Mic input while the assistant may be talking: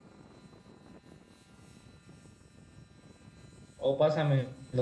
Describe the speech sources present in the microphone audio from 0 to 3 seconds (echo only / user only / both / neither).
neither